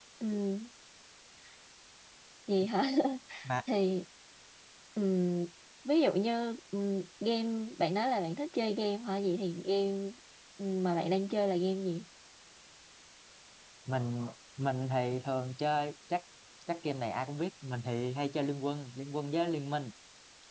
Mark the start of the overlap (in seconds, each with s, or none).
none